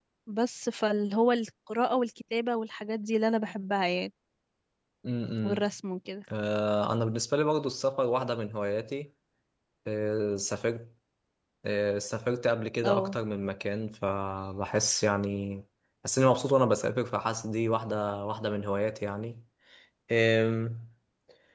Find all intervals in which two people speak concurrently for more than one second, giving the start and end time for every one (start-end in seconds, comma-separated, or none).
none